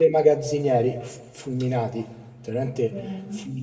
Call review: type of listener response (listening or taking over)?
listening